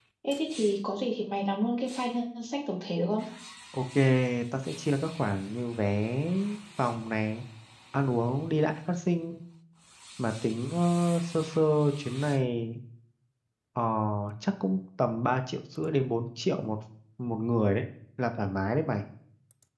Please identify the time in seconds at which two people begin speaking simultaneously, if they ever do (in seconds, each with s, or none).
none